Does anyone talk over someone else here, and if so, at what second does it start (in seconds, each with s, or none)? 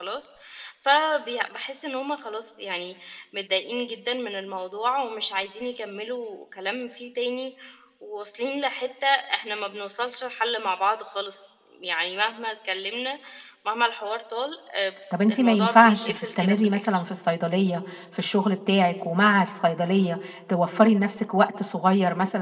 15.1 s